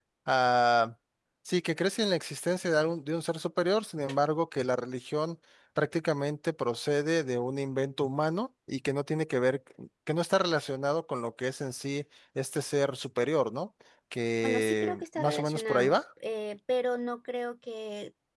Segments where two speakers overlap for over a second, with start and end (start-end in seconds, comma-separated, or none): 14.4-16.0